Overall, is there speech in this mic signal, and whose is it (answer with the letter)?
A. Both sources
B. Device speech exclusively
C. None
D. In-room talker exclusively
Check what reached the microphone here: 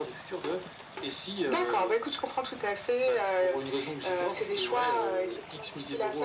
B